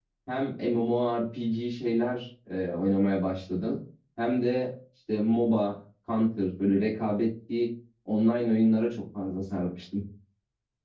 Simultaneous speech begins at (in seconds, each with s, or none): none